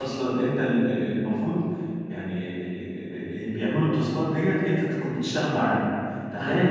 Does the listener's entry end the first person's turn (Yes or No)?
No